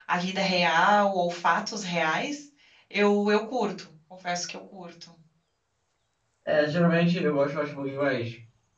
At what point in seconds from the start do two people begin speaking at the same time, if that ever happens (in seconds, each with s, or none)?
none